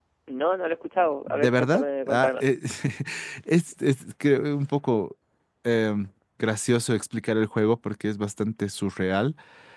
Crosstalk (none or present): present